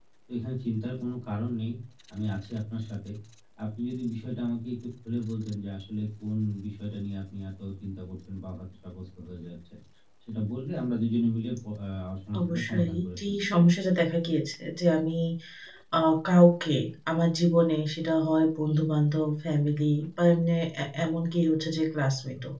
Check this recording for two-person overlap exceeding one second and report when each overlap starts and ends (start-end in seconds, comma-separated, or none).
12.4-13.7